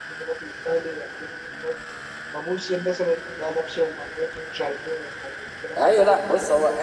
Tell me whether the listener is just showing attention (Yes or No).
No